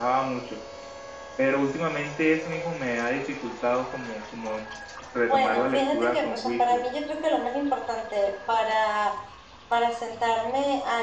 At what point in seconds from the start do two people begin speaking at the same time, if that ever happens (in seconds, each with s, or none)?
5.3 s